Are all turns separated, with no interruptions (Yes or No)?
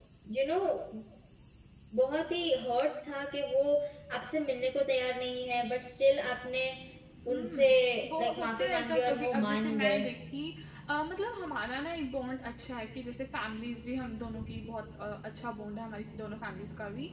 No